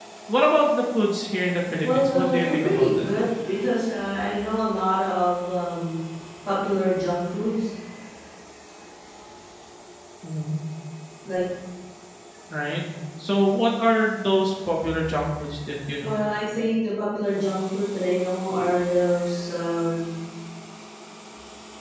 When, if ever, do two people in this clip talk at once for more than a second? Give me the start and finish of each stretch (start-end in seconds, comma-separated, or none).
1.8-3.0